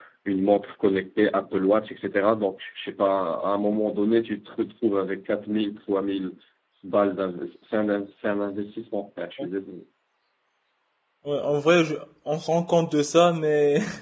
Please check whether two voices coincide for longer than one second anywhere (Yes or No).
No